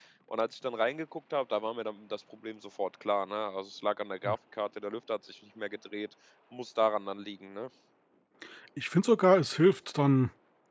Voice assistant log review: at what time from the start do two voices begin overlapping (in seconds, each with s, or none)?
none